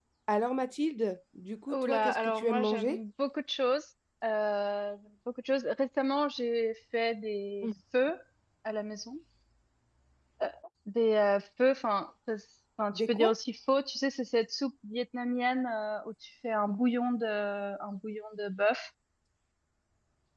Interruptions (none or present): present